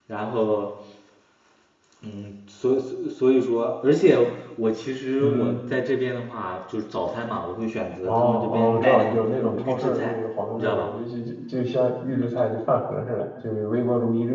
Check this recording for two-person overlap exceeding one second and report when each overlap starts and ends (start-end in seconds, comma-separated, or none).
8.0-10.1